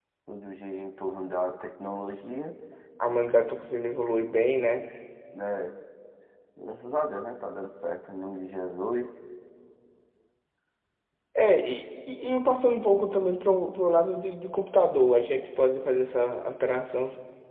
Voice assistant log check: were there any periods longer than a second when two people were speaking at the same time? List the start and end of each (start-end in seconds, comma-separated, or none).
none